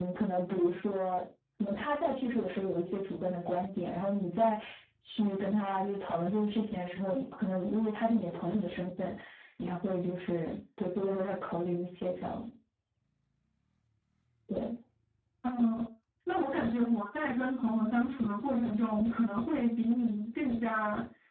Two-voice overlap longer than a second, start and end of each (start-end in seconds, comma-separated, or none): none